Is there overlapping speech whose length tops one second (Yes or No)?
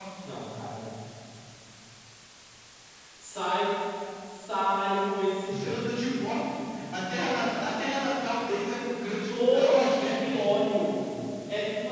Yes